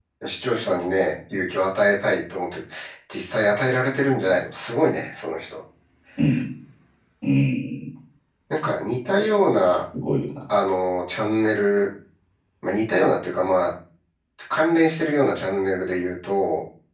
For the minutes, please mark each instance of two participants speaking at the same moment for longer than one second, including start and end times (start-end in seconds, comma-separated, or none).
none